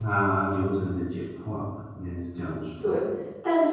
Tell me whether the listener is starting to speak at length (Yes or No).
Yes